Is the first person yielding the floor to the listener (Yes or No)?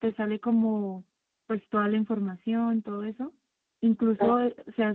No